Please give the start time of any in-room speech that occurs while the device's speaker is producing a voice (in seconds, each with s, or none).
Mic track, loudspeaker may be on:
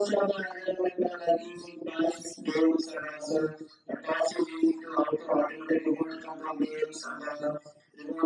none